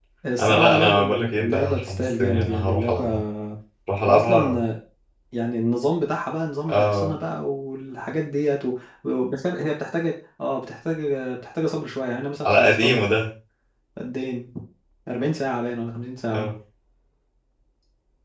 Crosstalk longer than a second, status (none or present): present